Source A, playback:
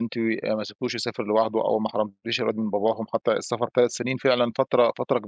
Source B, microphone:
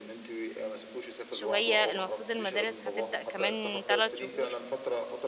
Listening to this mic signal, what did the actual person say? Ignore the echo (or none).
شوية المفروض المدارس هتبدأ كمان ثلاث شهور